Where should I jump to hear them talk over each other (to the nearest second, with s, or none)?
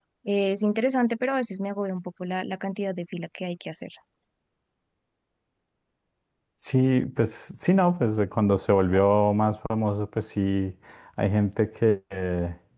none